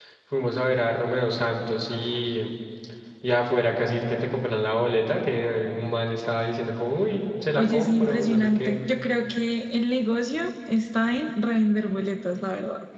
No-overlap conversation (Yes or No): No